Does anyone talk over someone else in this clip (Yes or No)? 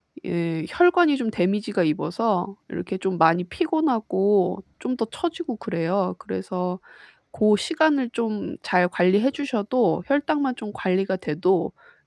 No